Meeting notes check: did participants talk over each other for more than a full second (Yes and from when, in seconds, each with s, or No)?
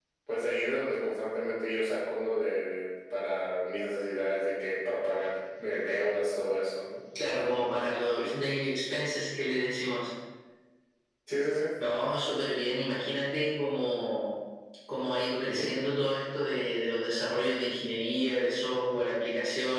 No